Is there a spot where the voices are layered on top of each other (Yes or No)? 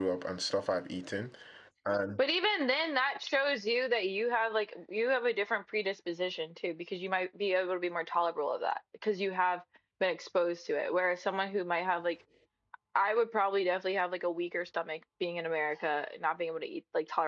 No